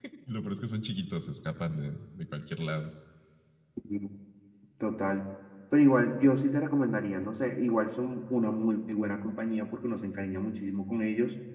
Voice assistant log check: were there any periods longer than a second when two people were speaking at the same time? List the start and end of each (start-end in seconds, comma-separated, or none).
none